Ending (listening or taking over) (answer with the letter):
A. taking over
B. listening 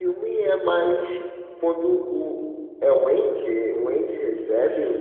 B